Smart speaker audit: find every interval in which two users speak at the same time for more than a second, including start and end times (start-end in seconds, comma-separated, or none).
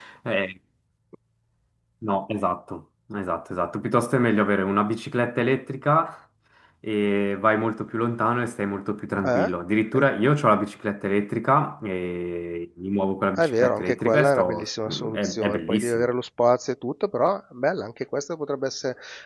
13.4-16.1